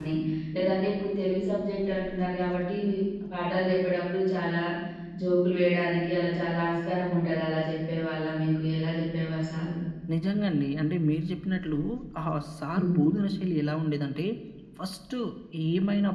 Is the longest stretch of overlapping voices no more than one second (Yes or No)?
Yes